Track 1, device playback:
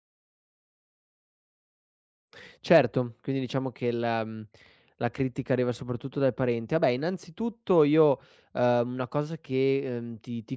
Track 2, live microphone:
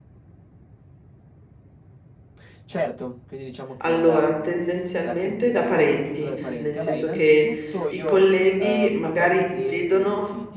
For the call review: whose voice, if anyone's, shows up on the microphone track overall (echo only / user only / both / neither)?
both